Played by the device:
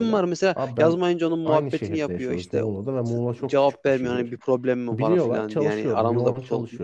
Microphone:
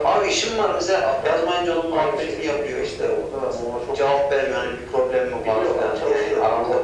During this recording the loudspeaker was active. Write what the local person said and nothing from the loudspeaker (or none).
none